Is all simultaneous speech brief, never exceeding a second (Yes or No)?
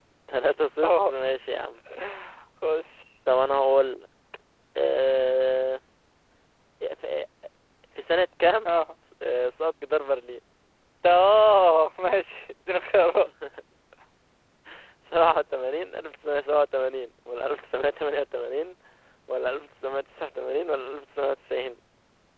Yes